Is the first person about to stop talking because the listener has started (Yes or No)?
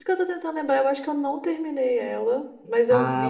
Yes